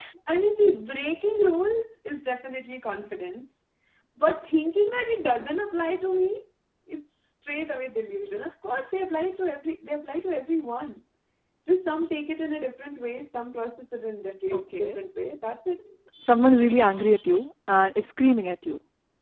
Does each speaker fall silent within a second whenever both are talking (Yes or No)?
Yes